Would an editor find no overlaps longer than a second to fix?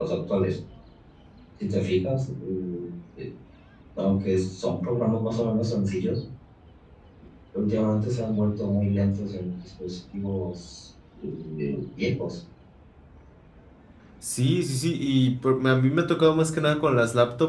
Yes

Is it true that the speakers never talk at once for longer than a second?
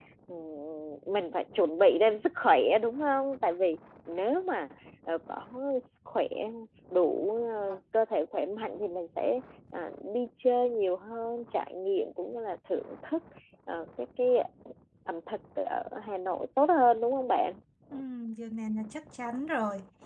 Yes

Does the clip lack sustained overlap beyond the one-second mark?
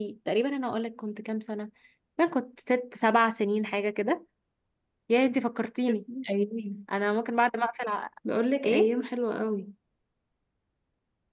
Yes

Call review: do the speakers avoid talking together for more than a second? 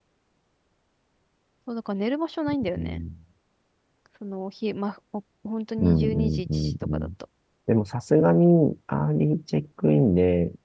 No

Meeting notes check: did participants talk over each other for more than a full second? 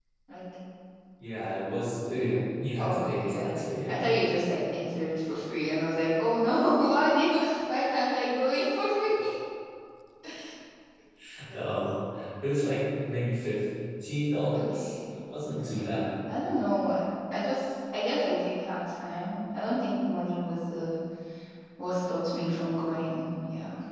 Yes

